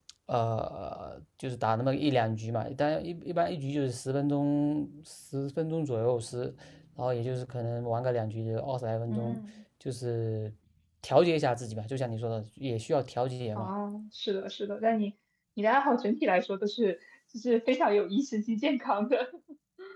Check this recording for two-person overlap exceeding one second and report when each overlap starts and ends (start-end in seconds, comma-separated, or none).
none